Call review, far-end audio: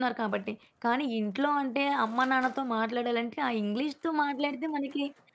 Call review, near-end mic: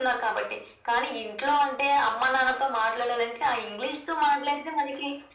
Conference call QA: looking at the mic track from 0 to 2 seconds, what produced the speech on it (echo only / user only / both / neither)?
echo only